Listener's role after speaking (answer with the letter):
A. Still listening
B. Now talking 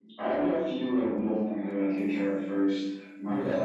A